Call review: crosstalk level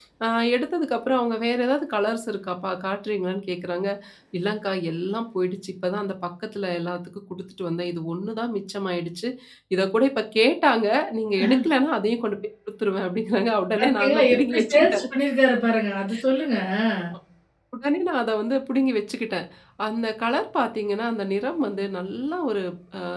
present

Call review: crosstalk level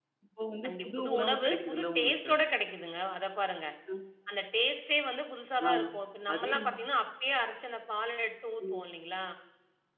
present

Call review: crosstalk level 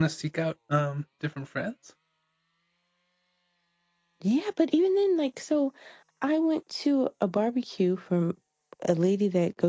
none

